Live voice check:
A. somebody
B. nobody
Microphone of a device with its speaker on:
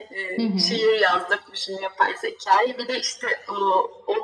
A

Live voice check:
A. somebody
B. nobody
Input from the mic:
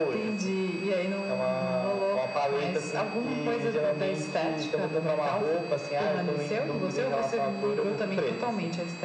B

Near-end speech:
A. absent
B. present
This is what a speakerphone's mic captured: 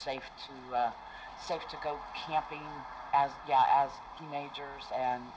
A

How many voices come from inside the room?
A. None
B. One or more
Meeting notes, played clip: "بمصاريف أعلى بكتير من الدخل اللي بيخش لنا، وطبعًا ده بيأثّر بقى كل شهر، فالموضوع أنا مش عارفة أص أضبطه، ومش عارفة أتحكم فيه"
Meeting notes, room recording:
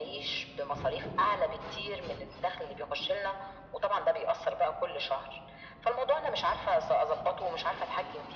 A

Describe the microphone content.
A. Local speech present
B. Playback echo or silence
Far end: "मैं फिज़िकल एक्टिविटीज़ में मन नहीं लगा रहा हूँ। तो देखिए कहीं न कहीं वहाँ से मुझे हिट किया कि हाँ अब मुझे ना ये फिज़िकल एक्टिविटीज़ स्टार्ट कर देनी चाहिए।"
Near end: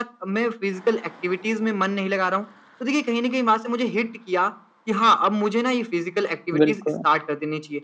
A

